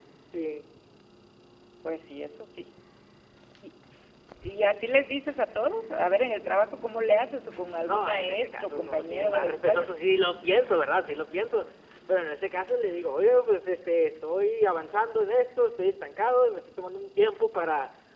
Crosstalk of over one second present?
Yes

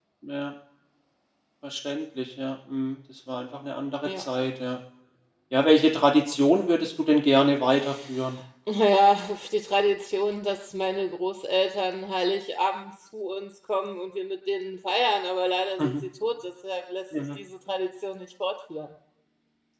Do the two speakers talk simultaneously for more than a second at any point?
No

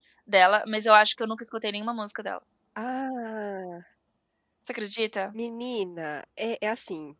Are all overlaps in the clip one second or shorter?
Yes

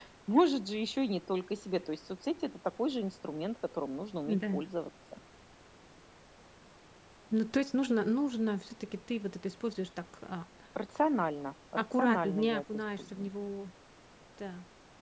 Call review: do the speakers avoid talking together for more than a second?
No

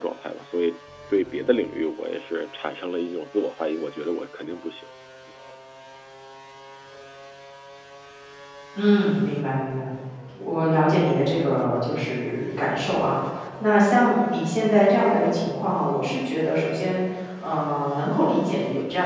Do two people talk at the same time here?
No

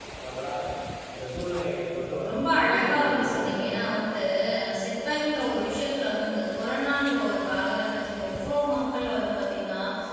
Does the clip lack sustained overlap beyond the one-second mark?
No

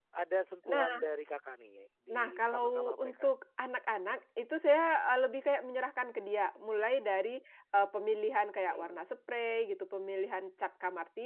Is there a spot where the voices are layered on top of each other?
Yes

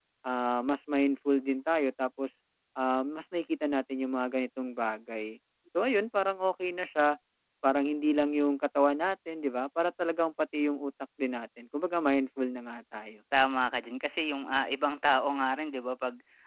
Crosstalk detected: No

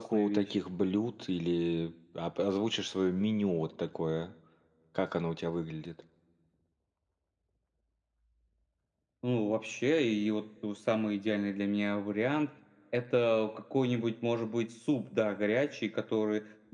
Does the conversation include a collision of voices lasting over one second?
No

